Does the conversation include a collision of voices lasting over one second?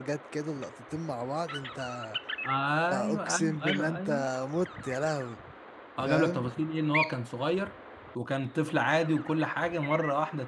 Yes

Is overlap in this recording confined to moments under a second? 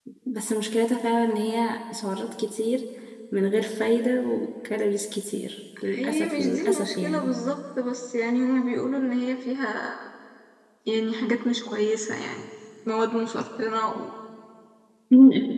No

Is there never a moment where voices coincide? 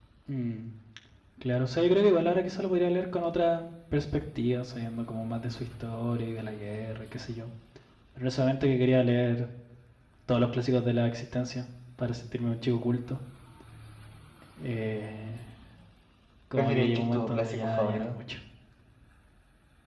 No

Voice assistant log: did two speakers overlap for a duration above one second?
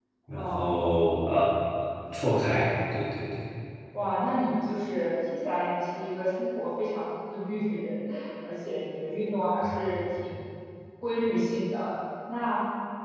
No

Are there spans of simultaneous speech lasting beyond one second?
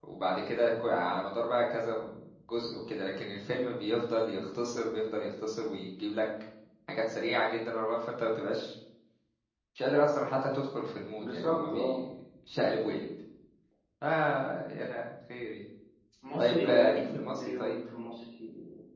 Yes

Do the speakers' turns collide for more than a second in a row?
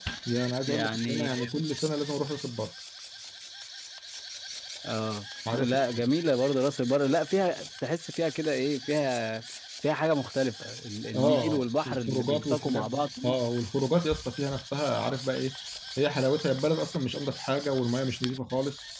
Yes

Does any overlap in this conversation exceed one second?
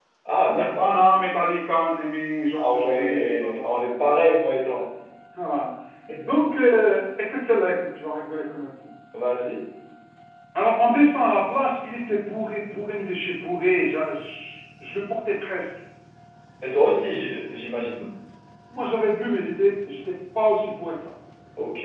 Yes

